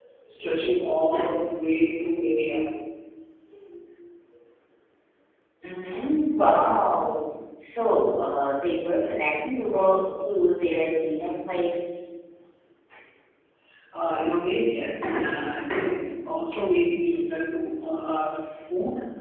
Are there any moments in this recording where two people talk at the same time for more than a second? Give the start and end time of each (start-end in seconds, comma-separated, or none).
none